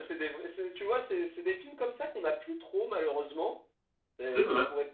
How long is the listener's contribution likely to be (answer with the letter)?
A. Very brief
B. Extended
A